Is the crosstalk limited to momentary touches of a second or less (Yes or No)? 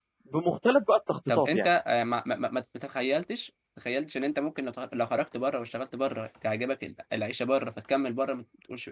Yes